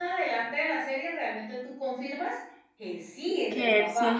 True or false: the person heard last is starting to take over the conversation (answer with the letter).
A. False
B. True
B